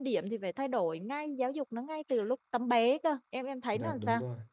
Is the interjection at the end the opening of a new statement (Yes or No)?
Yes